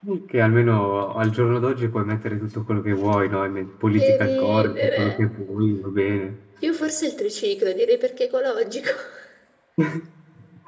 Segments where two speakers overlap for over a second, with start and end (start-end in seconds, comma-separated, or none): 4.0-5.2